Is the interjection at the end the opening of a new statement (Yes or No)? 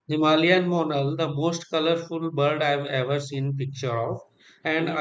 No